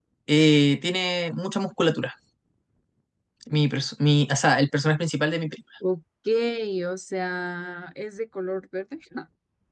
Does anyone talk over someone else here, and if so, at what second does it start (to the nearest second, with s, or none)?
none